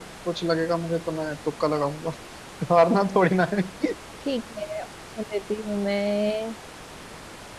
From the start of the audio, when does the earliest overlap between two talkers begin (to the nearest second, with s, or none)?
none